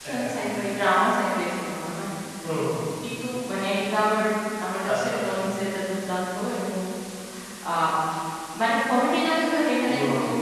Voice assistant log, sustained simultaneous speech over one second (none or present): none